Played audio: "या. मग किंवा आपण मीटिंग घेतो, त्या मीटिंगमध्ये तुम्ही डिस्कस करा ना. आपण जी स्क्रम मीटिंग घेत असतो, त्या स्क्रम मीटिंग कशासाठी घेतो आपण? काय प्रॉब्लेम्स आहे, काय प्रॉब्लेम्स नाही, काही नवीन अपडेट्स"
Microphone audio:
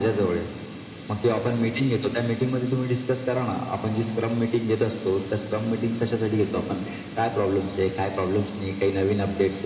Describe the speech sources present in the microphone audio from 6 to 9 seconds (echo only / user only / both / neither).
echo only